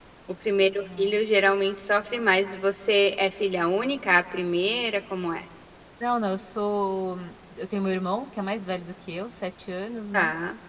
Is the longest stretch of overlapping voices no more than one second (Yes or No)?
Yes